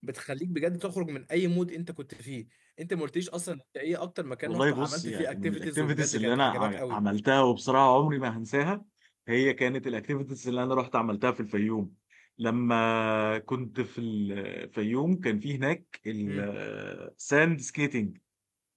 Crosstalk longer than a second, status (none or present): present